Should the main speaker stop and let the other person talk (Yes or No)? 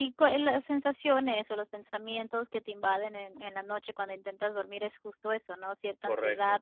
No